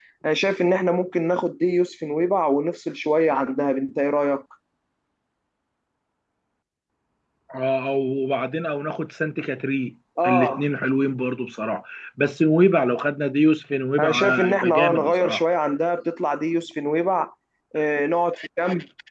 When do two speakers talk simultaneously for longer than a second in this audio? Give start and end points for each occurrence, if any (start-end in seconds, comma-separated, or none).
14.0-15.4